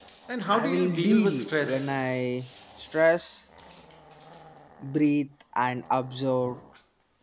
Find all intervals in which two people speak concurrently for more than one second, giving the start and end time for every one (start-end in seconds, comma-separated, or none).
0.5-2.0